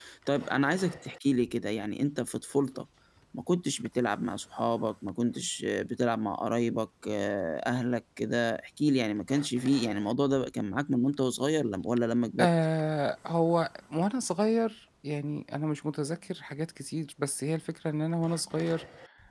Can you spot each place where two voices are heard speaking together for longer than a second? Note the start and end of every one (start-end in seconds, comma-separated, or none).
none